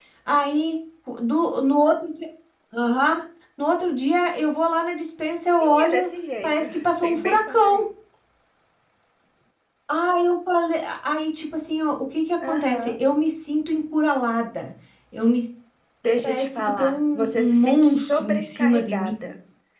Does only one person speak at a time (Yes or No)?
No